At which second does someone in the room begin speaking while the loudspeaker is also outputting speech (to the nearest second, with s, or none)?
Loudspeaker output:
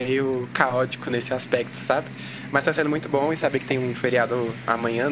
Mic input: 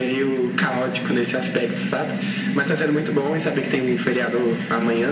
none